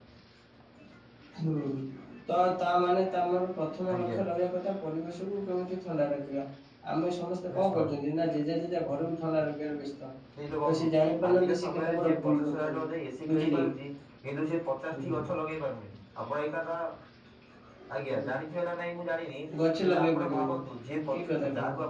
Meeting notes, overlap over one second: present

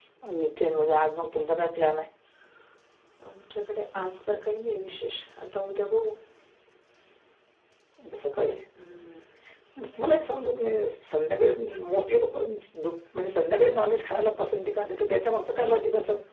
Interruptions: none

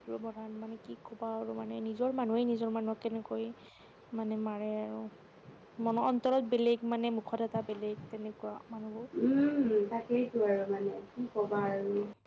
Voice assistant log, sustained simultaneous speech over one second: none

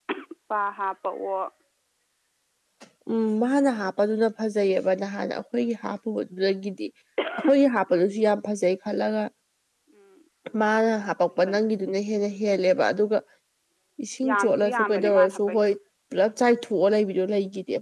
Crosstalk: present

